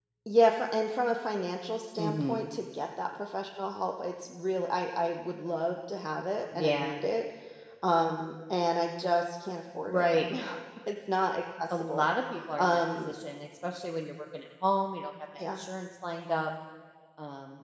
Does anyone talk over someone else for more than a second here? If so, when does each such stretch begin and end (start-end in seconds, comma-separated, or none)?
none